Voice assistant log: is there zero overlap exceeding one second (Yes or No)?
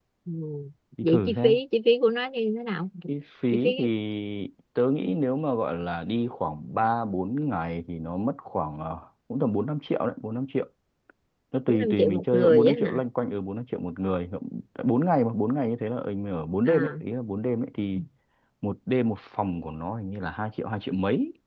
No